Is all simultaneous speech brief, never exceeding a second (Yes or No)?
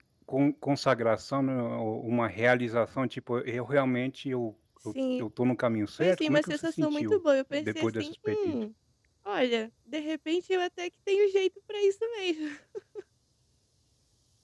No